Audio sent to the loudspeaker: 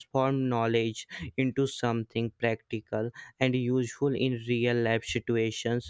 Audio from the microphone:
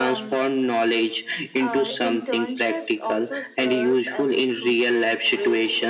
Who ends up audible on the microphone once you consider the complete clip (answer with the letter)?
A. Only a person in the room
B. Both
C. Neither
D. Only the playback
B